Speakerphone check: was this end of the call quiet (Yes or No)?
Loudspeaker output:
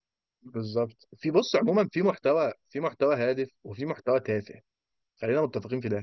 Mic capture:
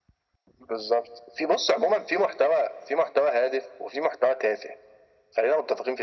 Yes